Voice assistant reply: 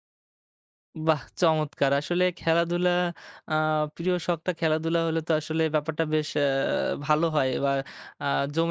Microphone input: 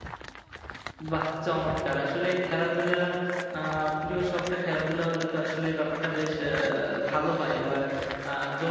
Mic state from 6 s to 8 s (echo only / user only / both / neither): echo only